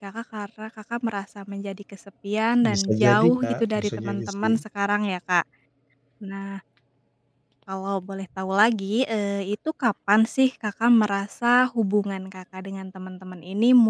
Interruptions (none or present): present